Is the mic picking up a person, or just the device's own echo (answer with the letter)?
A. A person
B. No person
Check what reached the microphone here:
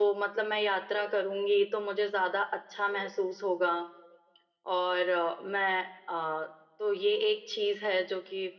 A